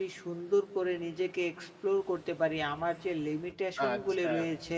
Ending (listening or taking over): listening